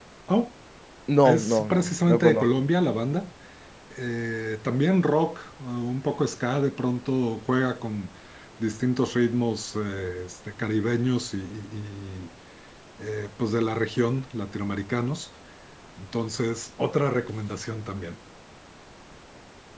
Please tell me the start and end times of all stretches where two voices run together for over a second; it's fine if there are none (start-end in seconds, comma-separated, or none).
1.2-2.5